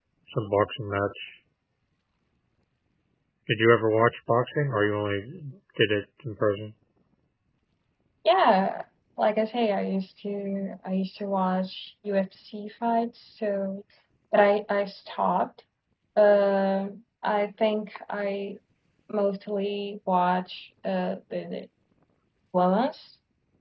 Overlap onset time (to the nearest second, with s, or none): none